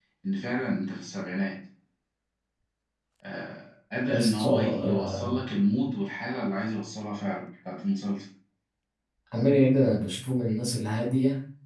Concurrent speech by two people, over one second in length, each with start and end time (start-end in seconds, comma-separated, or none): 4.1-5.4